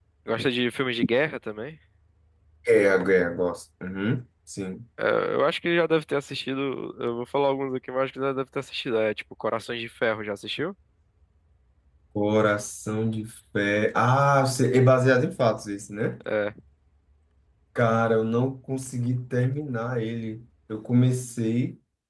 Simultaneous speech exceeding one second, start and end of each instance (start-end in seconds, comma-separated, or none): none